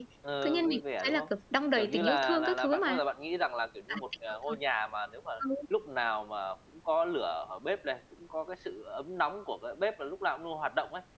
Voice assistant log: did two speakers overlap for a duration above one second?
Yes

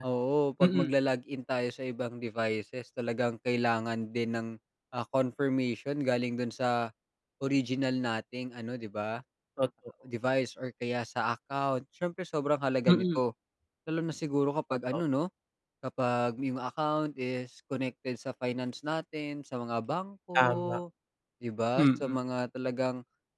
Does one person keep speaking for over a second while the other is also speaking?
No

